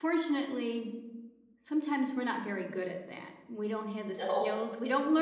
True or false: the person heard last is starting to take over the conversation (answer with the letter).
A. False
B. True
A